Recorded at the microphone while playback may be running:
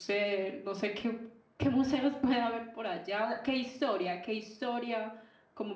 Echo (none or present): none